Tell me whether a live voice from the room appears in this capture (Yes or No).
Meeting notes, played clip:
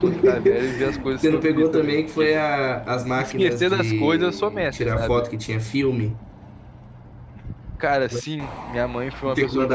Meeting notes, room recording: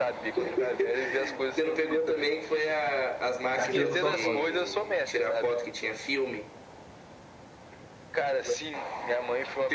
Yes